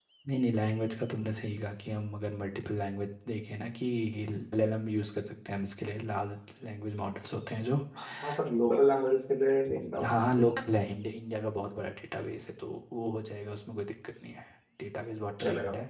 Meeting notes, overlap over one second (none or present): none